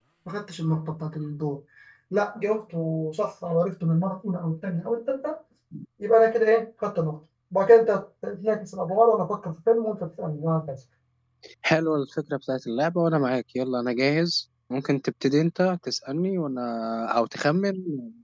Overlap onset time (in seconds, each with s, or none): none